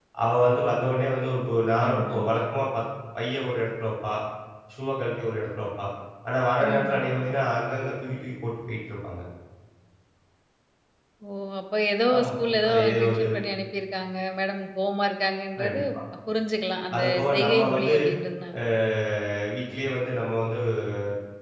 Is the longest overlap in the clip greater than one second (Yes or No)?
Yes